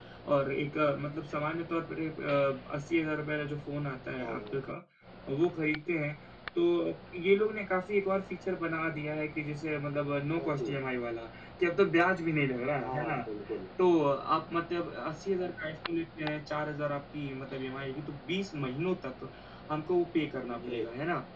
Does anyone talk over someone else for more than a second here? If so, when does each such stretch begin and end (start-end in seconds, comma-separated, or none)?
none